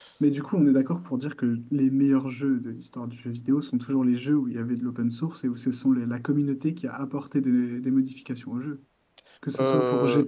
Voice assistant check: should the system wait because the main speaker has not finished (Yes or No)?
Yes